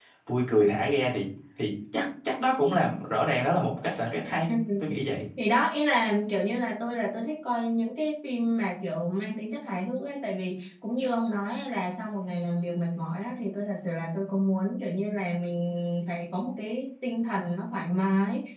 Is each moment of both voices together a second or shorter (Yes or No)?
Yes